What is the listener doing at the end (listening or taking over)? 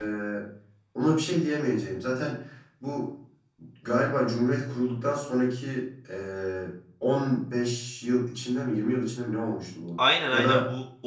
taking over